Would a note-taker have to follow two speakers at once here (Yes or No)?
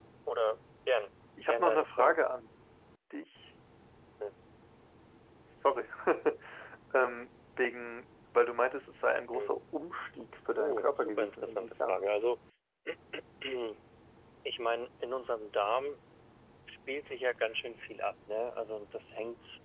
Yes